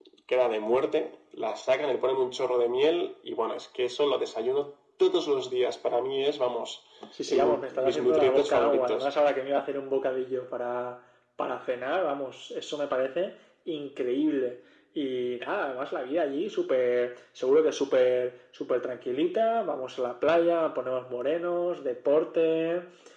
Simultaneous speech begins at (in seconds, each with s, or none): 7.3 s